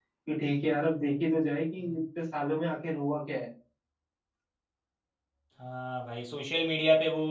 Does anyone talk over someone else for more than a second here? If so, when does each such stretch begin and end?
none

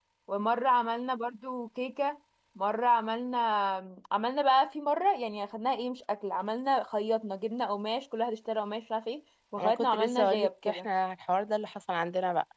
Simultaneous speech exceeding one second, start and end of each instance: 9.6-10.9

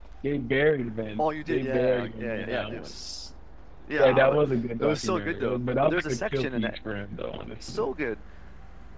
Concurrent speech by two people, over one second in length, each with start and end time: 1.2-2.9, 4.8-6.8

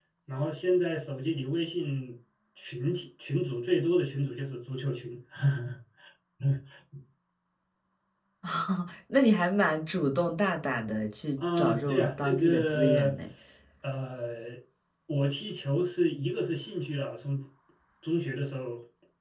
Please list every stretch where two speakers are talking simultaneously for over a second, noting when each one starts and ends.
11.4-13.2

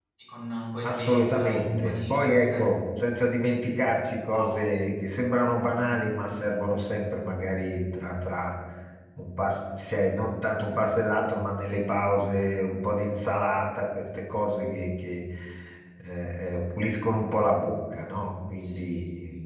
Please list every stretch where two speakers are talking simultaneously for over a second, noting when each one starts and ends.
0.8-2.5

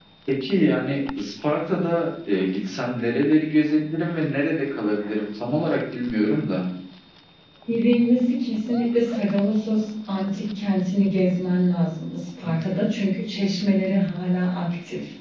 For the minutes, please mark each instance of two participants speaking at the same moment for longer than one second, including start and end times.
none

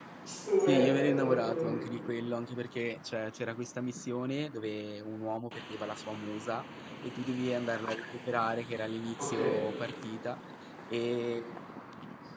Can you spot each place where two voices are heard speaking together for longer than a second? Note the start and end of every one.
0.6-1.8

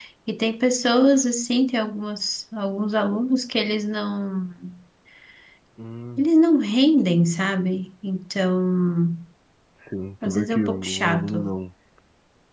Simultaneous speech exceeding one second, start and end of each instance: 10.2-11.5

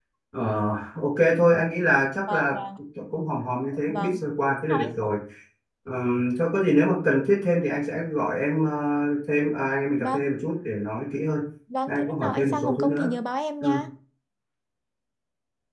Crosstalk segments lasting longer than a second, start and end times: 11.9-13.1

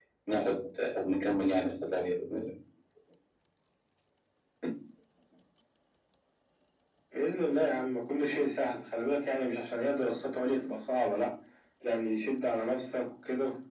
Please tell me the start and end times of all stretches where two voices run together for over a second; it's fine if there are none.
none

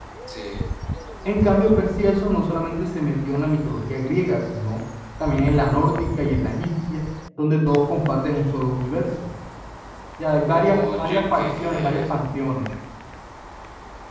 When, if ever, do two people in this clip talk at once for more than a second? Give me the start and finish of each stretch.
10.4-12.2

